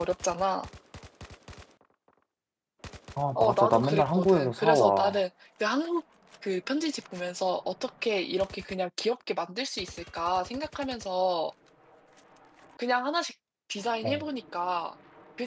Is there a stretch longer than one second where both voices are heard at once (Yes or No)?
Yes